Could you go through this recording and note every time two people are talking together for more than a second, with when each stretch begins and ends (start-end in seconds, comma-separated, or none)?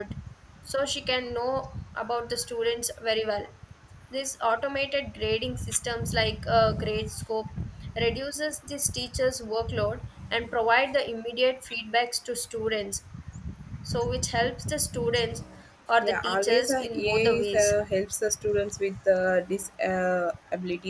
16.0-17.7